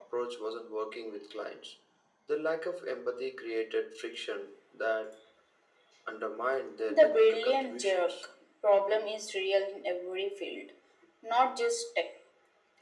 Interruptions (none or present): present